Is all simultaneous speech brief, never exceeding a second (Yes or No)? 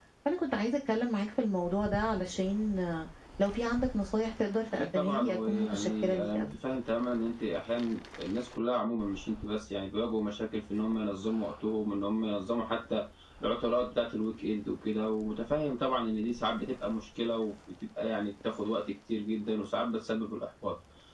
No